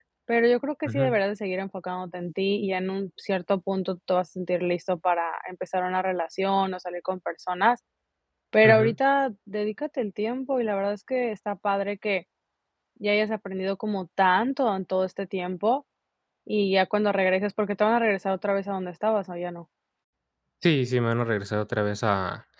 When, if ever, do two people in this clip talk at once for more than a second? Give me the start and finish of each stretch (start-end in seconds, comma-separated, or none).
none